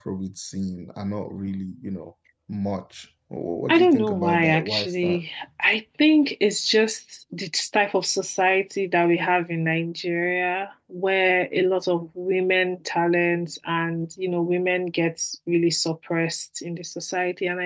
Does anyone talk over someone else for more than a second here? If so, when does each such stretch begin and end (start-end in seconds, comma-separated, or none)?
3.7-5.2